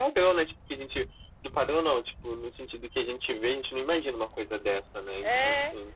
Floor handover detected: Yes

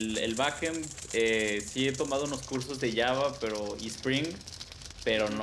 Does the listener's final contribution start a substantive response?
No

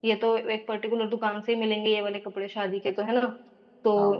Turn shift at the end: No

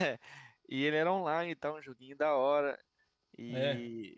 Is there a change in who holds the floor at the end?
No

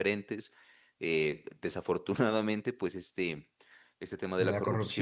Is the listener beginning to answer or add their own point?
No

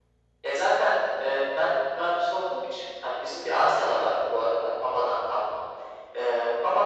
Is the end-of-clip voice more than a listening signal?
No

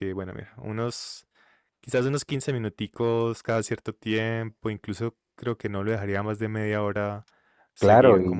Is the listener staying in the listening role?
No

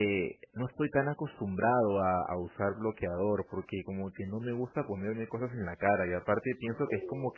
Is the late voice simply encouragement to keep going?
Yes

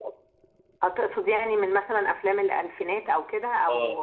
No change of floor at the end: No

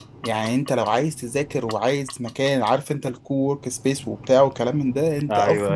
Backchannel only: Yes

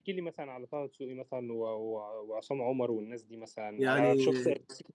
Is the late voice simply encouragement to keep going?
Yes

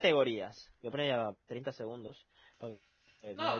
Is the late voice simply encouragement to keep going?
No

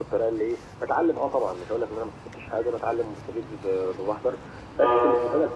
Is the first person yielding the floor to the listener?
No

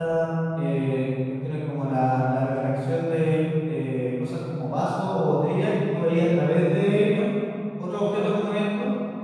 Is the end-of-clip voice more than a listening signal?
No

